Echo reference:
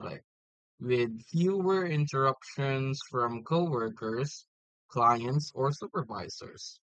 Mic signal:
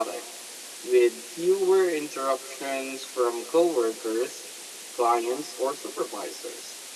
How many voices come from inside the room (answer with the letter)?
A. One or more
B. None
B